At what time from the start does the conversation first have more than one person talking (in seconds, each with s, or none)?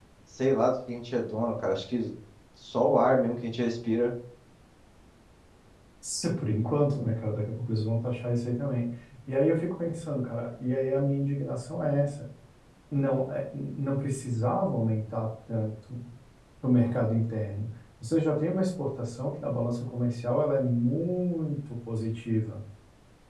none